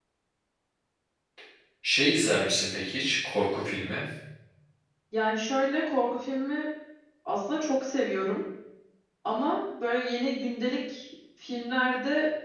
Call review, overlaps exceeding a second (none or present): none